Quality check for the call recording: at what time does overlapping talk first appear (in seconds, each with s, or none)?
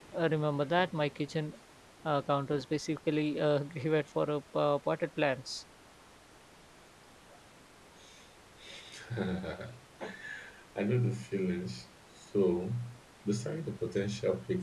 none